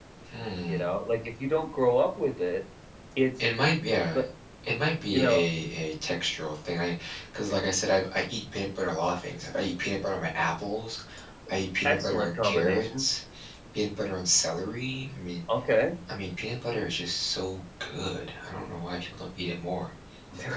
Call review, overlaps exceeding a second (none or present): present